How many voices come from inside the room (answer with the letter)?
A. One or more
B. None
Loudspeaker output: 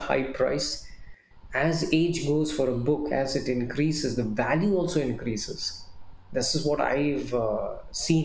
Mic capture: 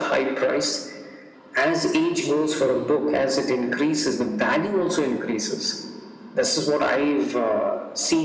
B